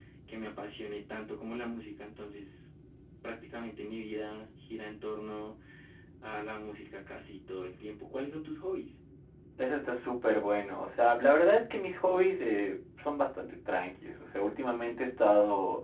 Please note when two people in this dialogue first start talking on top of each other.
none

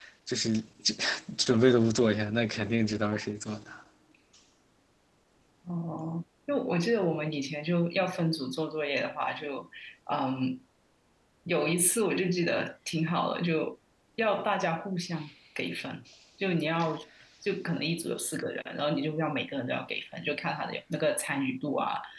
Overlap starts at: none

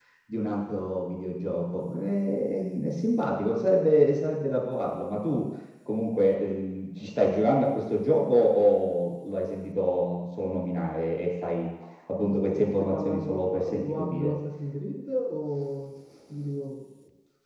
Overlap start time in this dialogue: 12 s

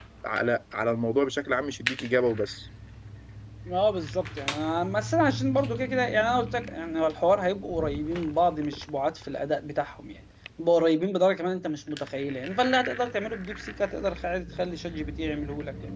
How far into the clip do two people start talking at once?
none

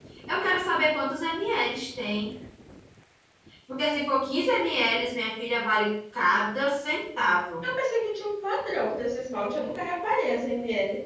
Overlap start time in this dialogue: none

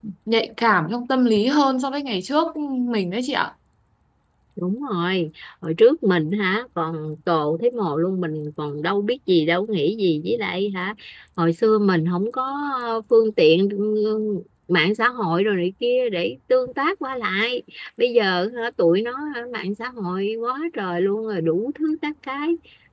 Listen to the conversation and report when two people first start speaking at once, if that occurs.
none

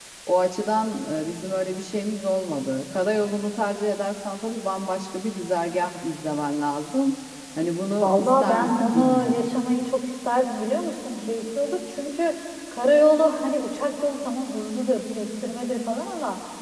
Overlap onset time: 8 s

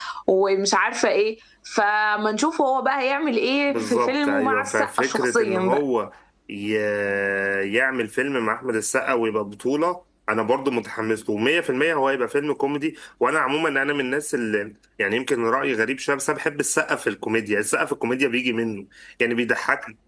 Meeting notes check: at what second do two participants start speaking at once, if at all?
4 s

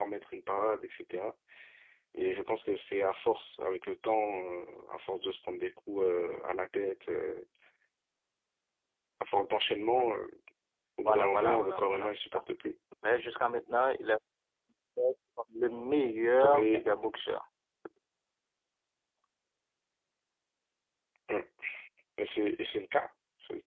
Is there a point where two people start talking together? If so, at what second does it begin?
11 s

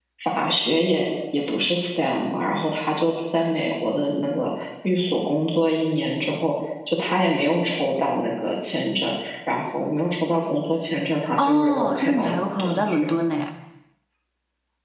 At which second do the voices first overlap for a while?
11 s

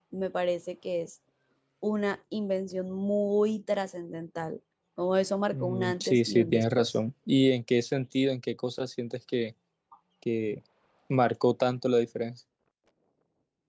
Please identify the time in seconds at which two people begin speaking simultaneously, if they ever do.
6 s

